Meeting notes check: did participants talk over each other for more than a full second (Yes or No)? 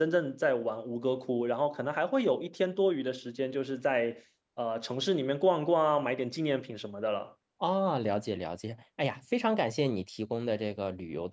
No